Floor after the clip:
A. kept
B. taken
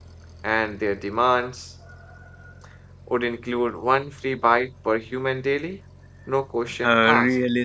B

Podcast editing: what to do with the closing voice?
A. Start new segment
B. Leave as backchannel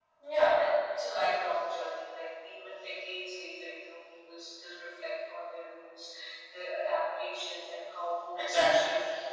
A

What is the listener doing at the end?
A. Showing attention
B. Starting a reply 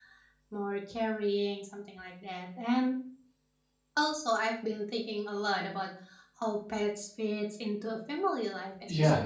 A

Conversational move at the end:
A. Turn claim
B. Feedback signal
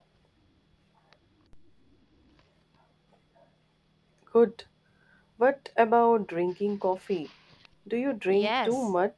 A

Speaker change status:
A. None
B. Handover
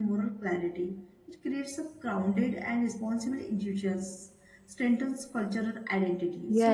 B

